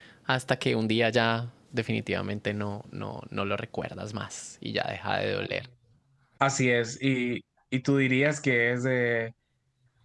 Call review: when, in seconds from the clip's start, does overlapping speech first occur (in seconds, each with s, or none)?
none